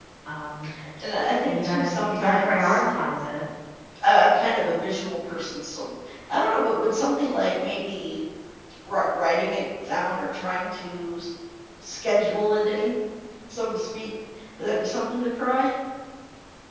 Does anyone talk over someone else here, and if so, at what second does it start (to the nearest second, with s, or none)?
1 s